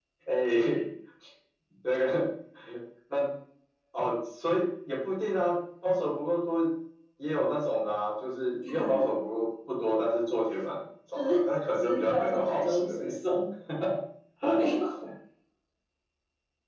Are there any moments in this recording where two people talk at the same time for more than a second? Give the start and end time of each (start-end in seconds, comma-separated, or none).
11.9-13.1